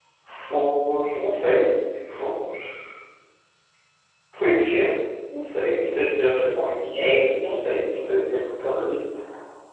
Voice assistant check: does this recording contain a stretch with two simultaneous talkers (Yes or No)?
No